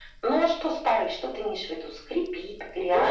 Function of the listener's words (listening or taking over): taking over